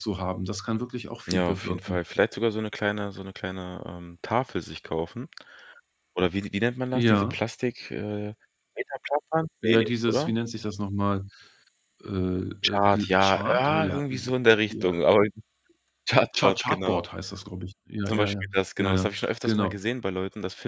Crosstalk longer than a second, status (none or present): present